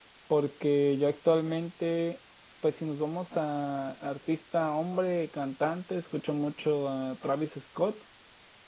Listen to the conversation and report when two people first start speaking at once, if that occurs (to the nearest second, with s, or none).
none